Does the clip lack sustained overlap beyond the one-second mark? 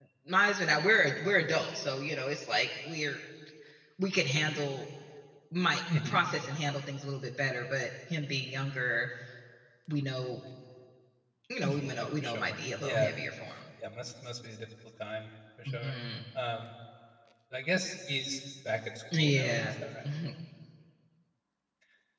No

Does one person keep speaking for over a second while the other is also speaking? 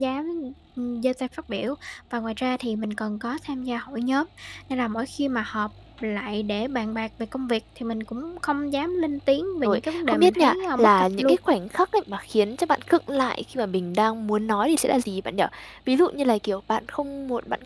Yes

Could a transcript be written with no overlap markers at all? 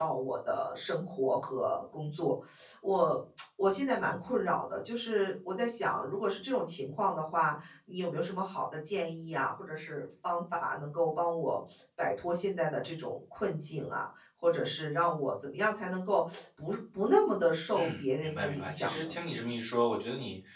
No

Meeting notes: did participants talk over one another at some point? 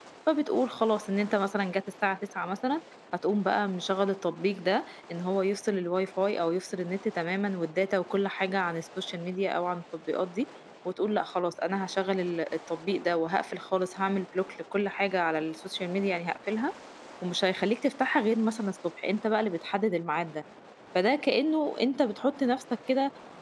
No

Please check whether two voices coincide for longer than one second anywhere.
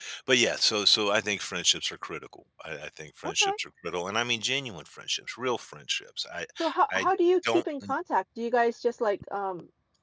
No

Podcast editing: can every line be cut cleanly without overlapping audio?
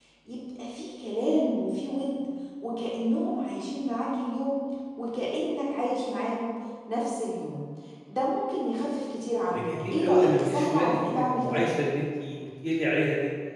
No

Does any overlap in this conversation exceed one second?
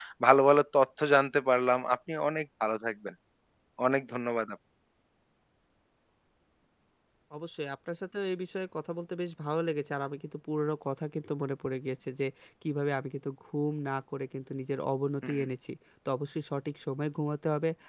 No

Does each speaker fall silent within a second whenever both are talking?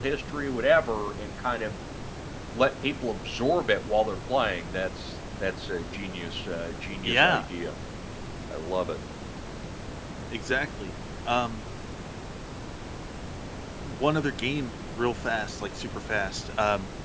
Yes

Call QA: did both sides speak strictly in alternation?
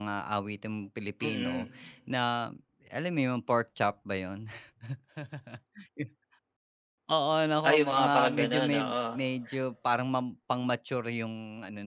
No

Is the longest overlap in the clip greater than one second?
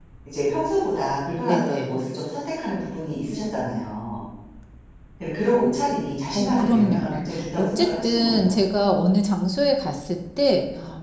Yes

